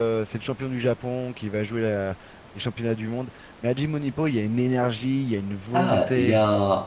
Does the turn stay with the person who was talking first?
No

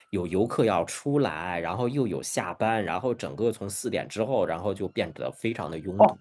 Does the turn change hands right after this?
Yes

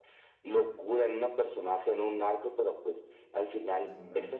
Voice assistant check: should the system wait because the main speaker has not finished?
Yes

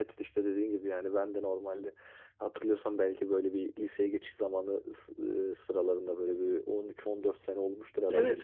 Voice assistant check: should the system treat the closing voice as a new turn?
No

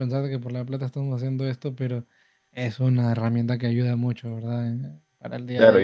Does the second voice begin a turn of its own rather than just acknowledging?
Yes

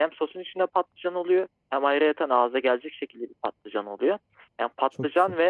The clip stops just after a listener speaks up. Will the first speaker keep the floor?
Yes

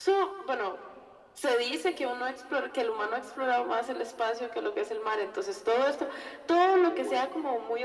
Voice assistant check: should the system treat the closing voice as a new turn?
No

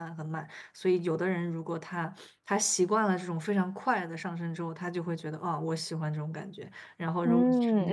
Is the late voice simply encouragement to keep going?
No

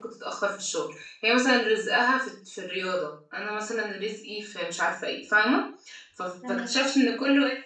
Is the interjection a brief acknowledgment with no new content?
Yes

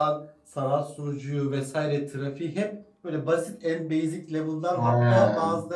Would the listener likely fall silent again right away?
Yes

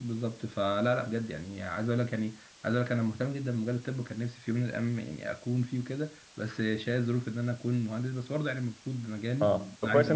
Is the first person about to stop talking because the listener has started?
Yes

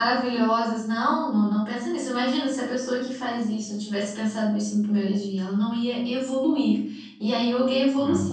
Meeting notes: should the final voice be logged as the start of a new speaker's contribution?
No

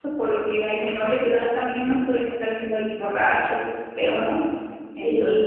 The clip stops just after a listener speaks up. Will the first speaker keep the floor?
No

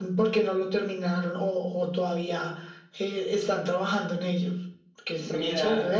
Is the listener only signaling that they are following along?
No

